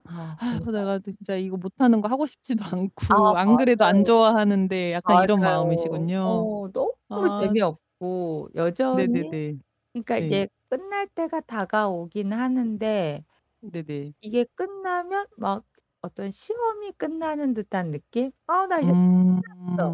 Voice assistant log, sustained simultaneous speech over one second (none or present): present